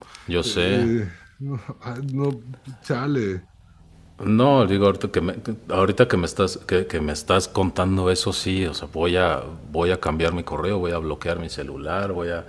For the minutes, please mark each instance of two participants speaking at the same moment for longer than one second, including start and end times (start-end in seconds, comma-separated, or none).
none